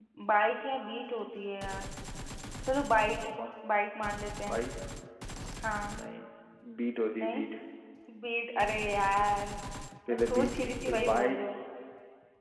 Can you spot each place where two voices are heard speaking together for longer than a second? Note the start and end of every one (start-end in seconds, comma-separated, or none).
10.1-11.4